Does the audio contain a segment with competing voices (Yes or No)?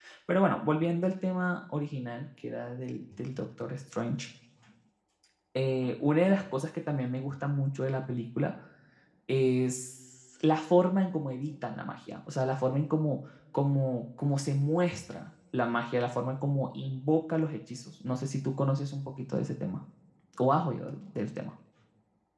No